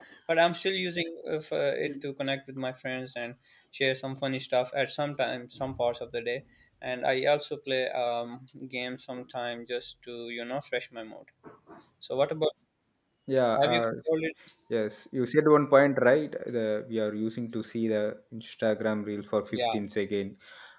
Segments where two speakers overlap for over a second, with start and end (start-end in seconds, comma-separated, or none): none